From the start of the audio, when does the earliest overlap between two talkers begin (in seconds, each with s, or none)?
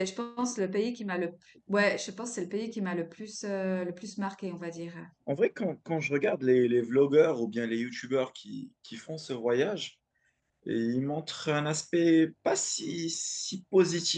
none